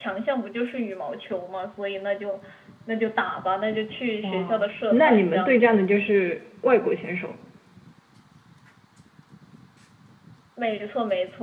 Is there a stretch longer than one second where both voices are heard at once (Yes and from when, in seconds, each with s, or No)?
Yes, from 4.2 s